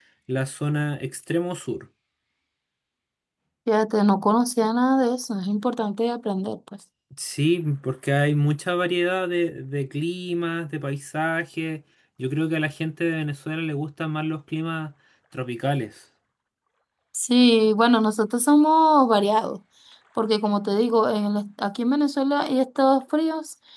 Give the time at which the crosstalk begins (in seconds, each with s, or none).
none